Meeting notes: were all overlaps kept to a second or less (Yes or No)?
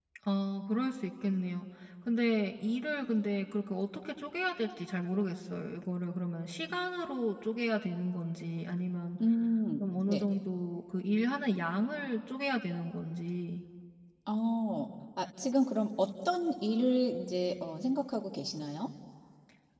Yes